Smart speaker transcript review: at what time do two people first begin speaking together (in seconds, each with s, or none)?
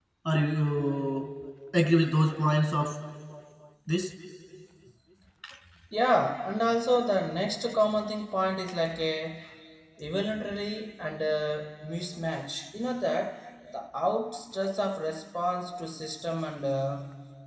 none